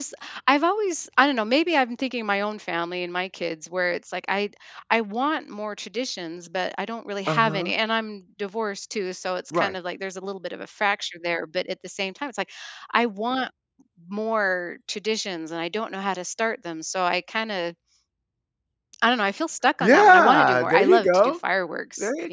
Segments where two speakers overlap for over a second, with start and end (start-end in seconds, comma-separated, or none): 19.8-21.3